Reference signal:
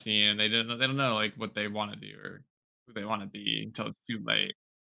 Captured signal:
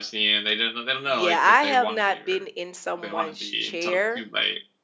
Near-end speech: present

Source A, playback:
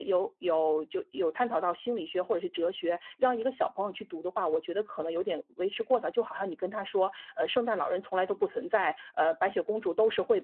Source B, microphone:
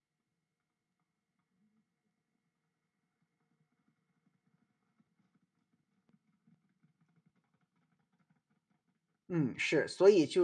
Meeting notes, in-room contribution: present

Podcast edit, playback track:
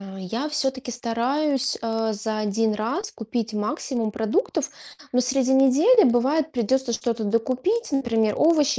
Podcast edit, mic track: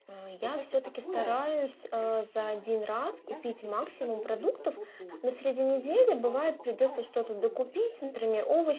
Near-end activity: present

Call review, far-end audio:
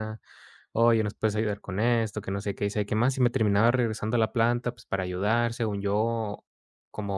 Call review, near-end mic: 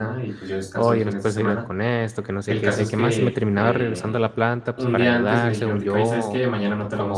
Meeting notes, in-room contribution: present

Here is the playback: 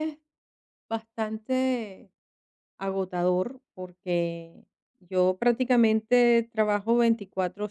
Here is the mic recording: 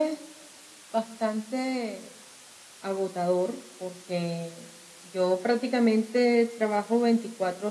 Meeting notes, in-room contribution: none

